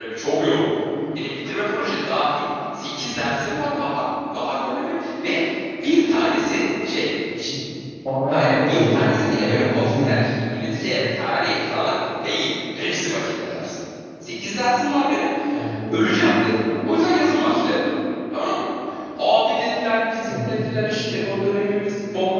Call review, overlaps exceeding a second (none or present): present